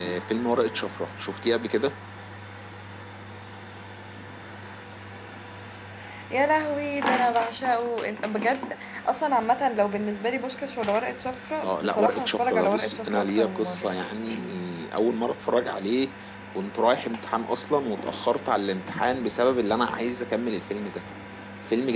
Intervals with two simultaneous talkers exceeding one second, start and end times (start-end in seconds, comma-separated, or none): 11.6-13.9